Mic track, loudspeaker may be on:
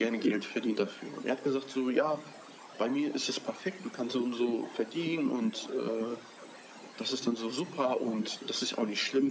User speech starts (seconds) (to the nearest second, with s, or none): none